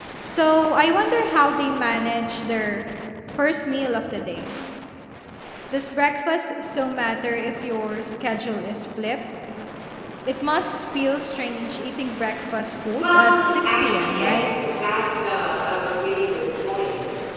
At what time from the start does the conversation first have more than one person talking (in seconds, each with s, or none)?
13.0 s